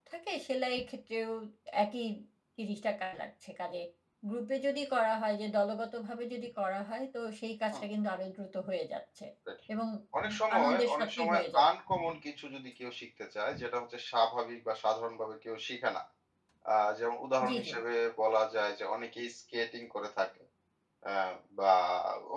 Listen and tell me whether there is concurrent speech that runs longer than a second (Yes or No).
Yes